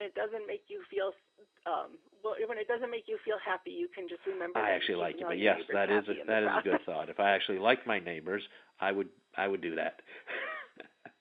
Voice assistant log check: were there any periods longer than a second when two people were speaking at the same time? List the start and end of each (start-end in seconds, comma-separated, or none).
4.5-7.1